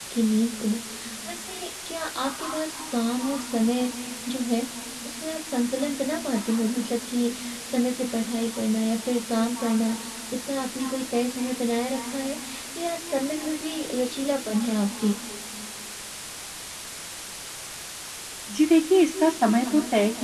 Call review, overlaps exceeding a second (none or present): none